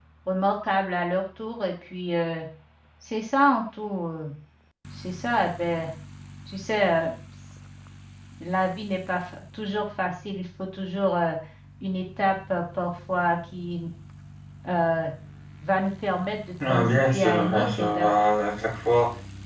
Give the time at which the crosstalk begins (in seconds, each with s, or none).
16.6 s